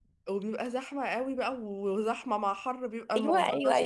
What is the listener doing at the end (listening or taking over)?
taking over